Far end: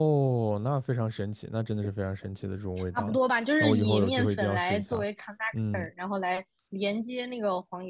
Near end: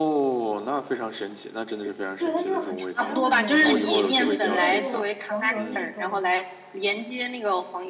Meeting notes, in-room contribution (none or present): present